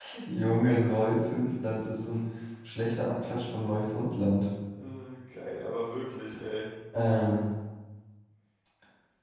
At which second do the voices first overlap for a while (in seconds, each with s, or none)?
none